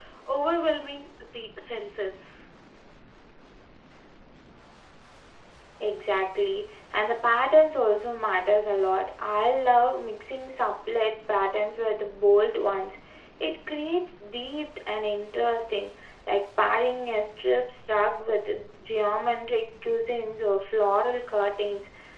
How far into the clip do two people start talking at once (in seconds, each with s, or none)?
none